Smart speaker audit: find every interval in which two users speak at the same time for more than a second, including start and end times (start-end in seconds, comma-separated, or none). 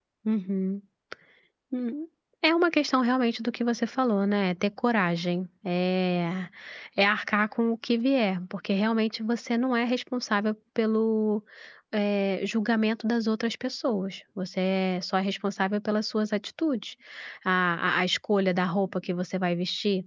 none